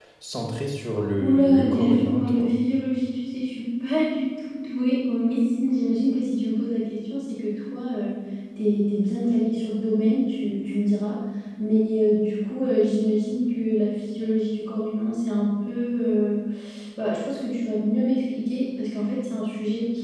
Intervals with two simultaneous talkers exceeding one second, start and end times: 1.2-2.6

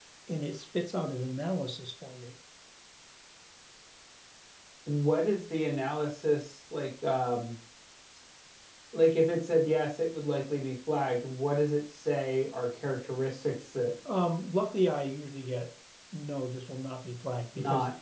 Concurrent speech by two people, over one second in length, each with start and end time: none

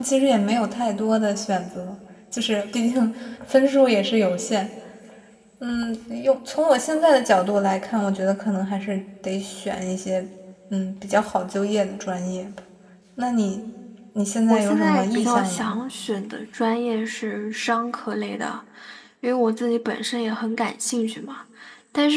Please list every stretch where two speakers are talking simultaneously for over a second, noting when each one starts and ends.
14.5-15.8

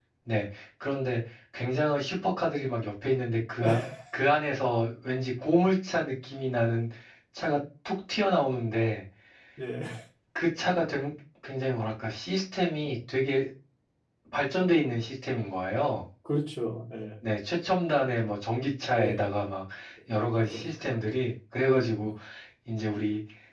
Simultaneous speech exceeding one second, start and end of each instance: none

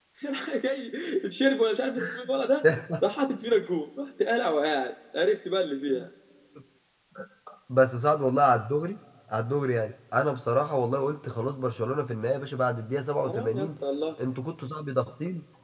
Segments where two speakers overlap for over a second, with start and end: none

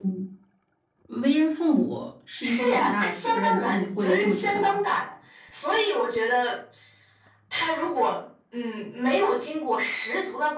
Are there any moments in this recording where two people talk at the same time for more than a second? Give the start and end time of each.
2.4-4.8

